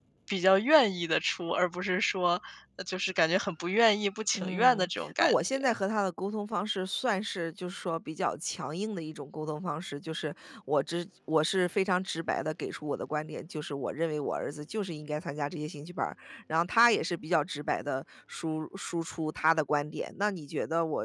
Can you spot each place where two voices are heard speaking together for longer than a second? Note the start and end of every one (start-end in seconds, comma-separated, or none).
4.3-5.6